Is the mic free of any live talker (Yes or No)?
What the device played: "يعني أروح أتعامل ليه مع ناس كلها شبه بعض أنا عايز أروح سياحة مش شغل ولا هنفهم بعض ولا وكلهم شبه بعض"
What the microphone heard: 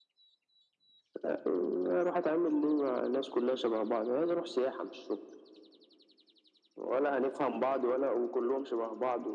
Yes